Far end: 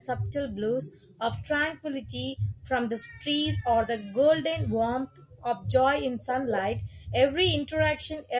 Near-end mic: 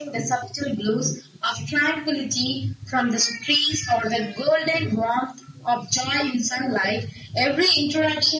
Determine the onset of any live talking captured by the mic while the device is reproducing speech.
none

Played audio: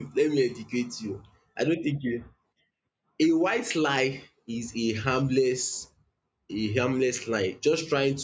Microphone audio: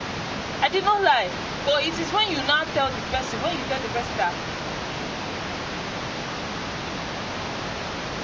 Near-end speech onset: 0.6 s

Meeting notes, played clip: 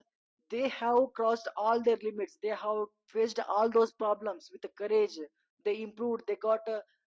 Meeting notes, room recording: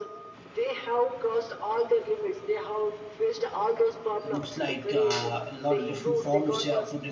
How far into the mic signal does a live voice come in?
4.2 s

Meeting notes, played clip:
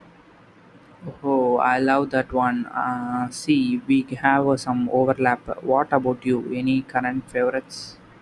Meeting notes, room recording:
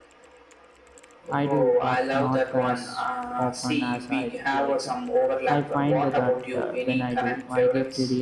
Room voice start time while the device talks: 1.3 s

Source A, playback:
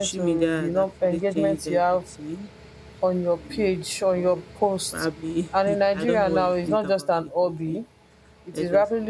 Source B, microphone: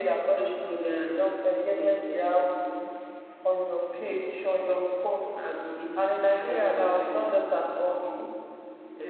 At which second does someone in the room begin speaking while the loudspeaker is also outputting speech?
none

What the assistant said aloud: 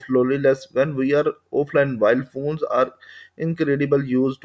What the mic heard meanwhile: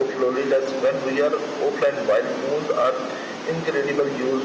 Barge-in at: none

